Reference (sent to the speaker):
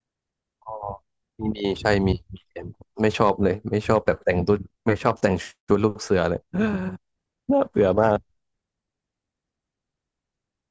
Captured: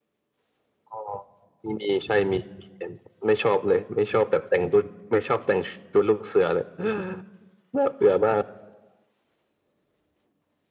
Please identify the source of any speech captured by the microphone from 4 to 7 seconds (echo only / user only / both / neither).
echo only